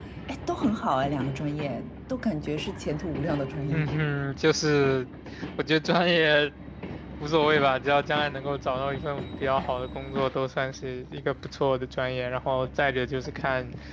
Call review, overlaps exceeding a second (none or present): none